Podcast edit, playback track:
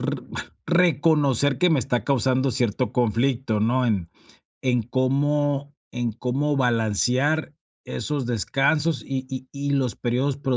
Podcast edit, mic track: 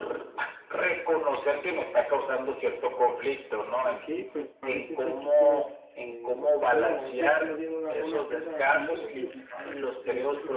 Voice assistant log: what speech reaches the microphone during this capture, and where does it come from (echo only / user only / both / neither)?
both